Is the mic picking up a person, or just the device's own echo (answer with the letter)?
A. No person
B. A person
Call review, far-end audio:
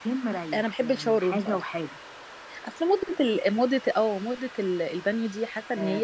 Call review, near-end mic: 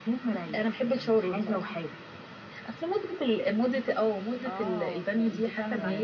B